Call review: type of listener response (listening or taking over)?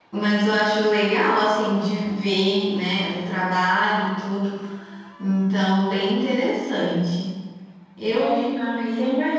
taking over